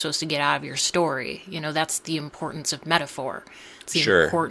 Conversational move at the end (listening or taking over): listening